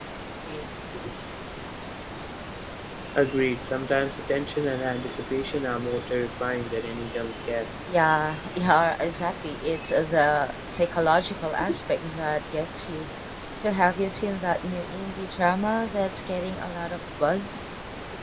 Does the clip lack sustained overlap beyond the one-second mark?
Yes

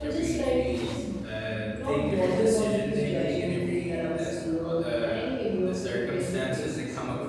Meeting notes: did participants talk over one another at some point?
Yes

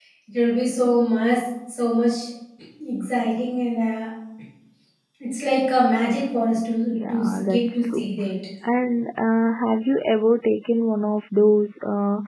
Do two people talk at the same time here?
Yes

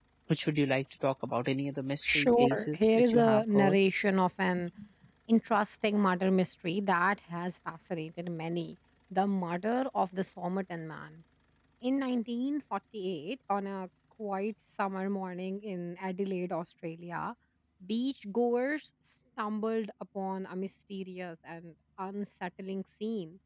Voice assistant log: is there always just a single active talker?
No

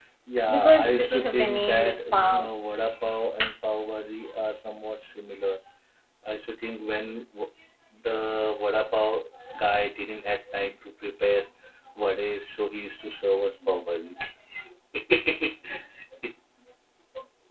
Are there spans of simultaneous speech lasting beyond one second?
Yes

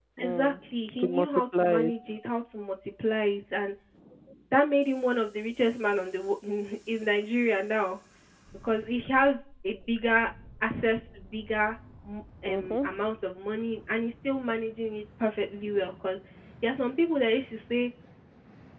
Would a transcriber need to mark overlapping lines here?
Yes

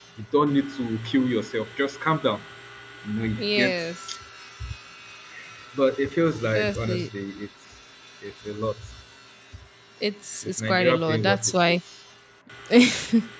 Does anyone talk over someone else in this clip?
Yes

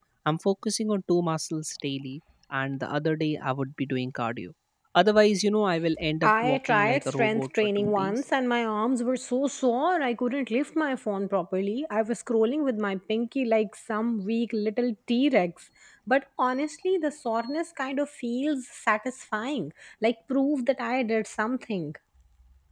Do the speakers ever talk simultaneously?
Yes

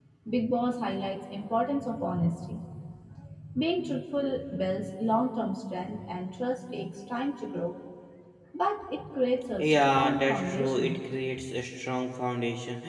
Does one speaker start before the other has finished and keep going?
Yes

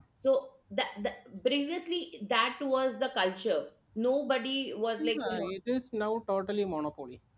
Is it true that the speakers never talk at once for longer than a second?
Yes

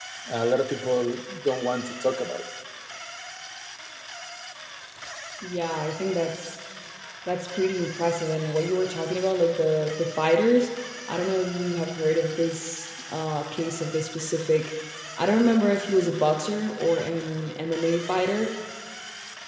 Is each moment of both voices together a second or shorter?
Yes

